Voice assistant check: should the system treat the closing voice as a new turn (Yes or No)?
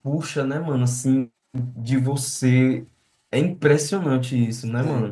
Yes